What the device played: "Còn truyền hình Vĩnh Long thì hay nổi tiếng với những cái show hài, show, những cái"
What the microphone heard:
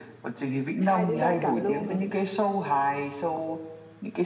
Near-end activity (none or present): present